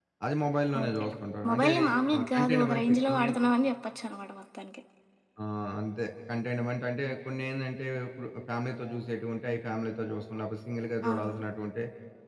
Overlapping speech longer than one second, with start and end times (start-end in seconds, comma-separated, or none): 2.1-3.4